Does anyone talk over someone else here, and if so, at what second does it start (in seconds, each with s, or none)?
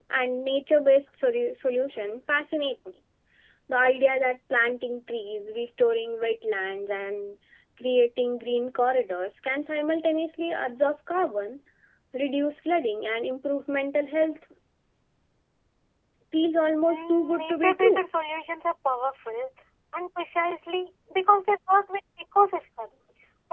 16.8 s